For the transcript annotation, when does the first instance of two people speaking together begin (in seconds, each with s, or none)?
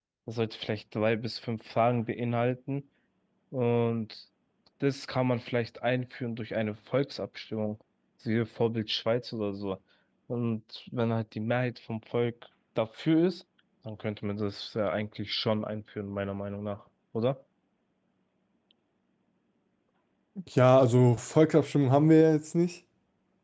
none